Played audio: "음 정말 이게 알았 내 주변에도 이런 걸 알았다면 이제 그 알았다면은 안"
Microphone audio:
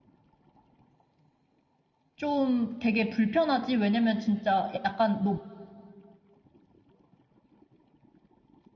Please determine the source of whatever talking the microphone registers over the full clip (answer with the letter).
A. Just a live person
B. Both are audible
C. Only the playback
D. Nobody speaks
A